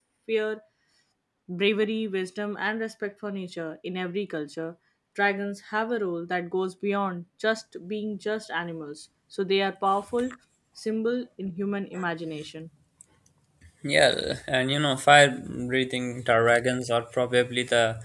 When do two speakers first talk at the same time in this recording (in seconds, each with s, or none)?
none